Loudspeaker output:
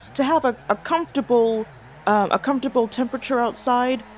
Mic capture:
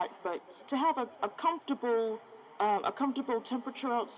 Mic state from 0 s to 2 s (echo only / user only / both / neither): echo only